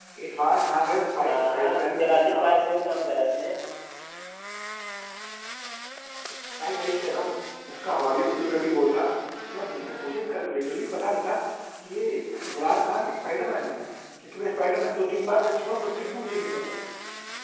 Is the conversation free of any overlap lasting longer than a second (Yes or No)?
No